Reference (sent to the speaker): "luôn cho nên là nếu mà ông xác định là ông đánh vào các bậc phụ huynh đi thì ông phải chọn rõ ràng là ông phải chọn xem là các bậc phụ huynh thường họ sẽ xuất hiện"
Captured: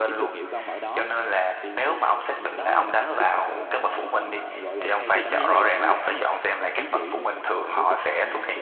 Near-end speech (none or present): present